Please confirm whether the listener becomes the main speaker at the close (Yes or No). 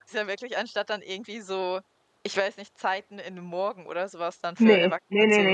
Yes